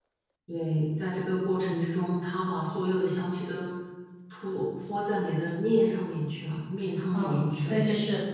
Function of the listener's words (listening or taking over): taking over